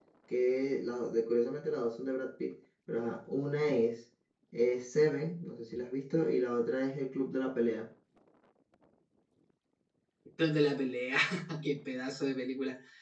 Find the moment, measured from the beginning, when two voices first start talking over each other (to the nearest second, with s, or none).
none